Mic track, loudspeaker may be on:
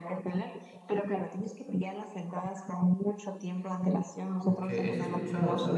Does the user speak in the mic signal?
Yes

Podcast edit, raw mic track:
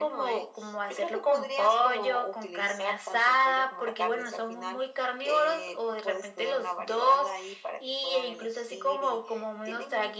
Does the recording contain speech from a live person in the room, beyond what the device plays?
No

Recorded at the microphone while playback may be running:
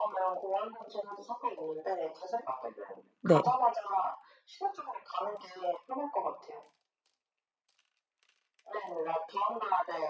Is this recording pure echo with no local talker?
No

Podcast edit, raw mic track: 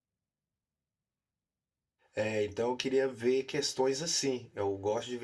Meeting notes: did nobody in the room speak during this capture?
No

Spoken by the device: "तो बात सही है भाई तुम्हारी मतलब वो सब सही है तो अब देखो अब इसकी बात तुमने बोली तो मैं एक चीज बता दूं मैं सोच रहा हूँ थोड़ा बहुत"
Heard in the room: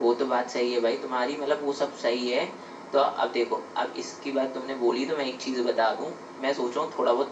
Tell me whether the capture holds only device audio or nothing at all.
Yes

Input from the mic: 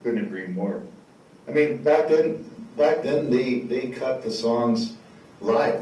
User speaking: No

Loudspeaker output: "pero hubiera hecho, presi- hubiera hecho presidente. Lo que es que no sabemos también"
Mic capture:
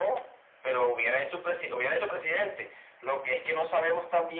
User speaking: No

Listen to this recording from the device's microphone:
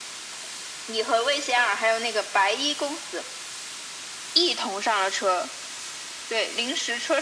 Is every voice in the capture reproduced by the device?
Yes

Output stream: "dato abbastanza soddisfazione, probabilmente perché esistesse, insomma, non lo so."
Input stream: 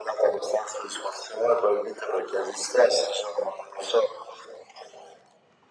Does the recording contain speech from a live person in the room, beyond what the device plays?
No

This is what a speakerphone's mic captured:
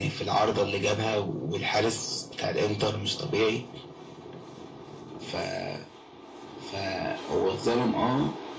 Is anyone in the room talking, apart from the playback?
No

